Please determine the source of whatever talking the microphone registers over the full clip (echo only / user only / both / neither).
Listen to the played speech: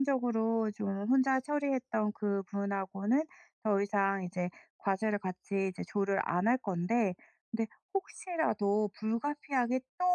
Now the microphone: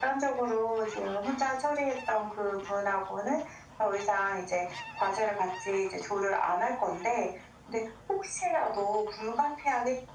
echo only